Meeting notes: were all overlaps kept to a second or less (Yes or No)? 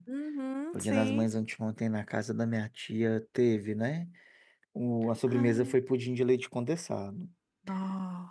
Yes